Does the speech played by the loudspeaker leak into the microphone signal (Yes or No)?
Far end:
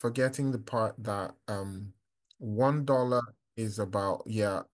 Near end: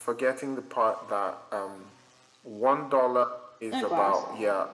Yes